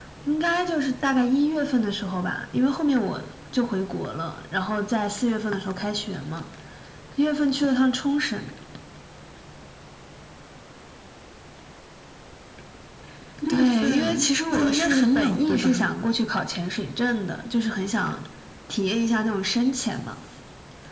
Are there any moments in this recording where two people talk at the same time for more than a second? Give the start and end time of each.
13.5-15.9

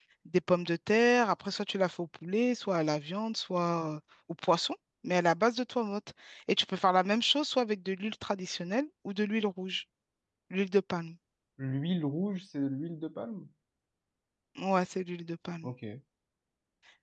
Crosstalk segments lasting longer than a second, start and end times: none

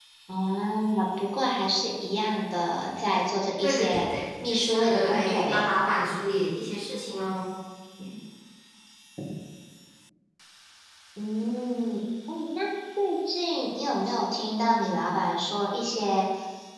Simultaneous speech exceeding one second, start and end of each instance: 3.6-5.7

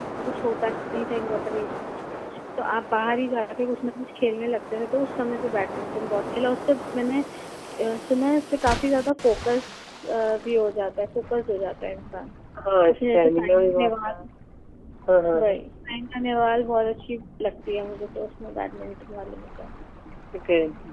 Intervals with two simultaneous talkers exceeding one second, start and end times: 12.9-14.1

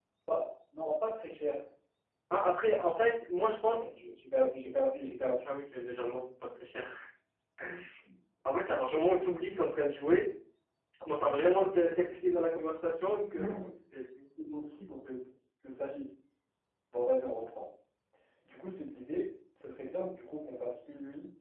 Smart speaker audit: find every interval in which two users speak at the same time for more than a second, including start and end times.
none

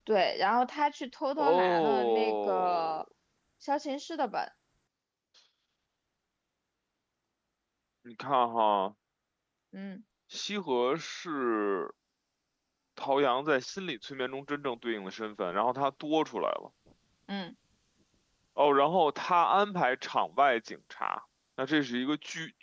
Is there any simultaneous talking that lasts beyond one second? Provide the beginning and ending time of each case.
1.4-3.0

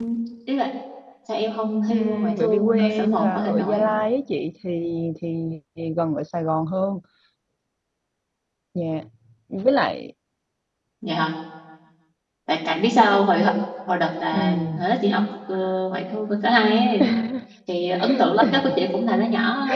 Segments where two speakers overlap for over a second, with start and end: 1.9-3.9

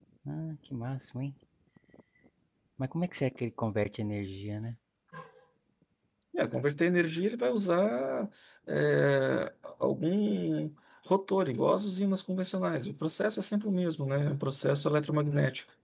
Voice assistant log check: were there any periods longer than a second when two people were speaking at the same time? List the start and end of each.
none

